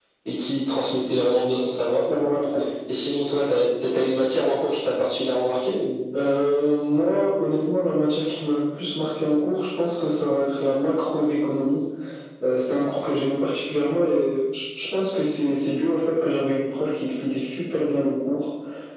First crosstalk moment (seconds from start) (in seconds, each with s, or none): none